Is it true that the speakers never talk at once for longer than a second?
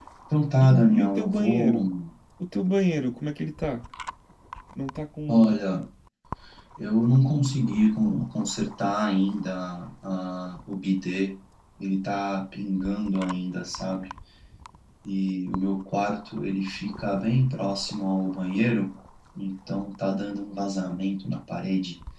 No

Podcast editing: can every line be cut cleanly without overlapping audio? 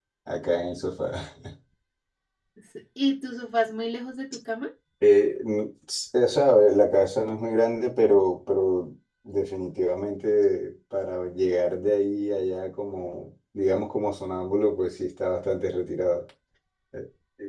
Yes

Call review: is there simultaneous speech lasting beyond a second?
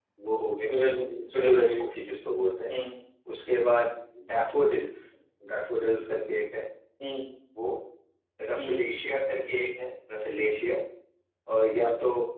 No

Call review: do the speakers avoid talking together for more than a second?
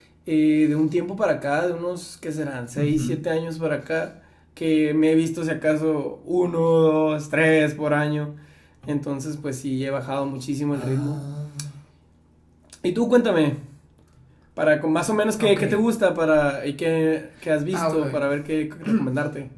Yes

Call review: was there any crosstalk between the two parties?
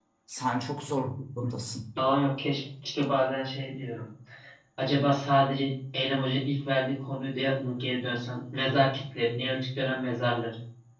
No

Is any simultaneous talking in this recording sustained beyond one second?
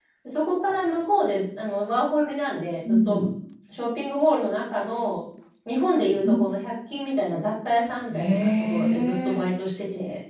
Yes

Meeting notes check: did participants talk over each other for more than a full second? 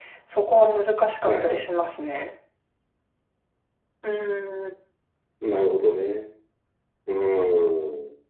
No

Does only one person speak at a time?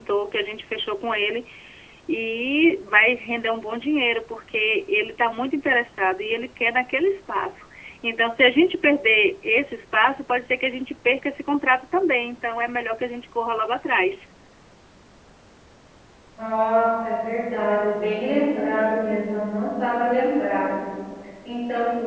Yes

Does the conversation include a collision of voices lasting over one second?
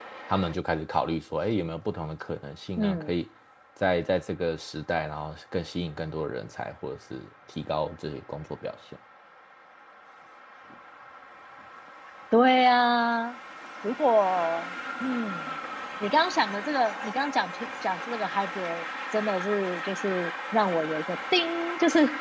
No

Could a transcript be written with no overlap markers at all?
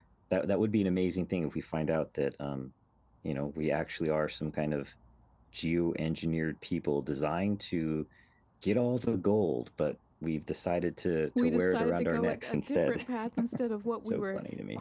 No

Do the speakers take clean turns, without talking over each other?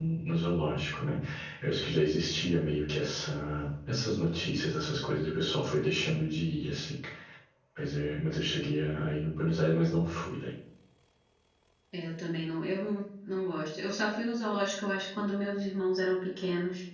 Yes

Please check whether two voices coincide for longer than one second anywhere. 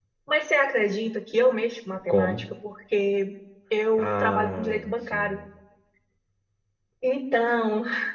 Yes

